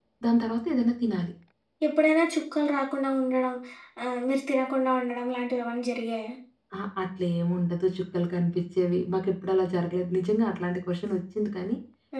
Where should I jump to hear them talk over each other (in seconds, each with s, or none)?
none